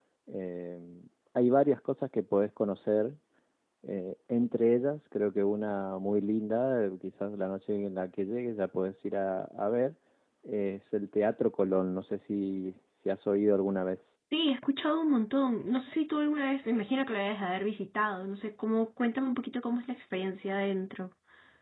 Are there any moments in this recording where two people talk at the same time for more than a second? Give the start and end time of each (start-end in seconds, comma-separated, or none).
none